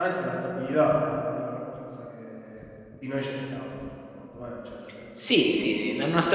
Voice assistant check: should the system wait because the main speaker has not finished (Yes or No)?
No